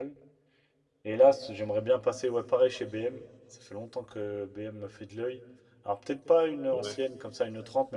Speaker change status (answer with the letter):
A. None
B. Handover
A